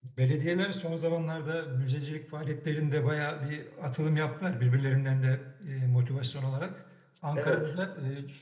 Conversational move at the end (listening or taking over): listening